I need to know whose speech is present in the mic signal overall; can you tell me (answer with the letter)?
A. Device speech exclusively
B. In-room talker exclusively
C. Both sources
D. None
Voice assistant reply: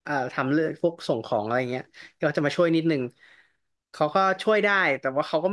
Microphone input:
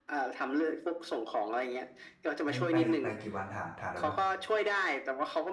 C